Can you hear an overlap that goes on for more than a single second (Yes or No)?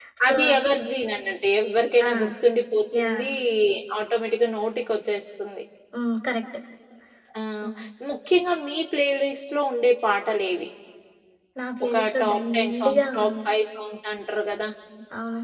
Yes